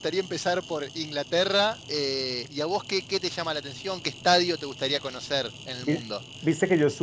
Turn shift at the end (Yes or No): Yes